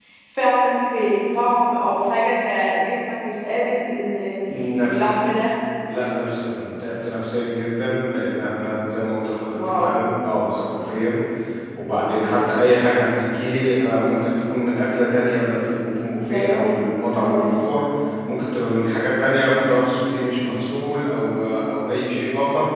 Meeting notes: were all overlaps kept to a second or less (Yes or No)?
Yes